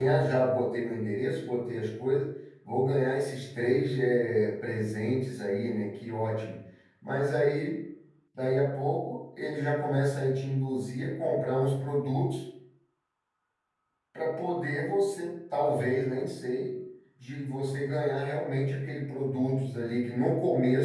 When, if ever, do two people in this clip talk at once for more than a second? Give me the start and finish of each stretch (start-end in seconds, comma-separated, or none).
none